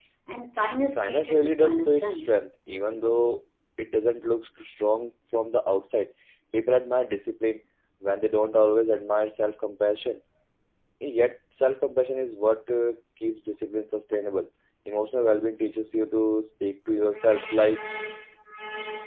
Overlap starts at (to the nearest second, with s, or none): 1 s